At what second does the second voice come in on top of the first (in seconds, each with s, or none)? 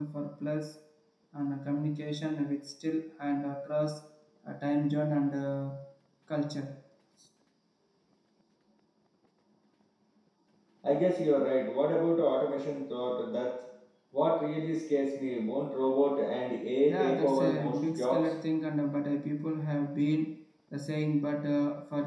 16.9 s